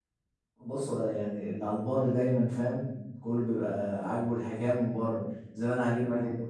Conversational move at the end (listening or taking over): listening